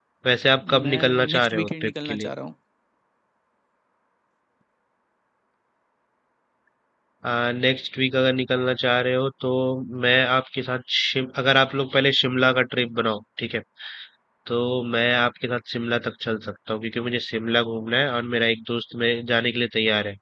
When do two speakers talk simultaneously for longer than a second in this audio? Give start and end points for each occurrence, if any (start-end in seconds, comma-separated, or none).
0.8-2.3